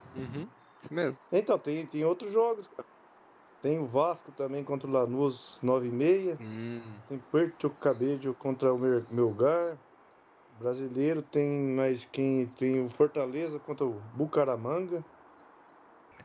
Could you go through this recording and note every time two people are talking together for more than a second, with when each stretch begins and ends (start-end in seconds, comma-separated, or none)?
none